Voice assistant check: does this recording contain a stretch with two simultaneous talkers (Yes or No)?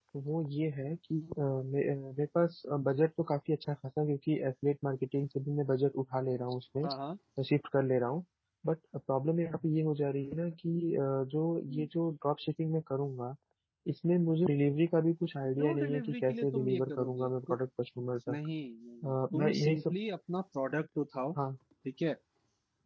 Yes